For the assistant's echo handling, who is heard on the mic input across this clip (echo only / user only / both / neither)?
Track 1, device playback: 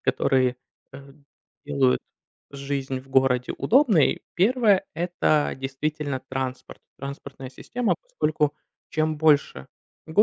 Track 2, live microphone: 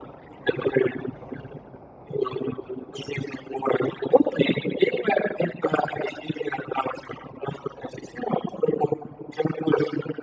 echo only